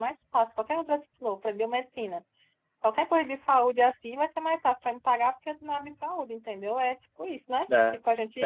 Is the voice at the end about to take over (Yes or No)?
Yes